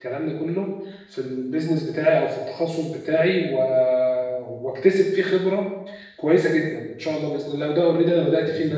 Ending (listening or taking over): listening